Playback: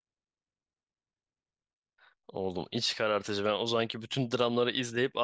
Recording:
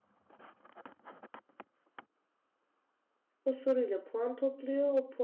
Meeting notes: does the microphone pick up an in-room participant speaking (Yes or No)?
Yes